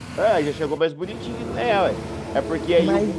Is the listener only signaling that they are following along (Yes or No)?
Yes